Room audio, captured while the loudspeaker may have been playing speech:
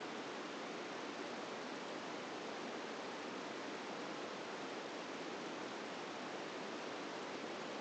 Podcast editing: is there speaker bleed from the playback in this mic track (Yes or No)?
No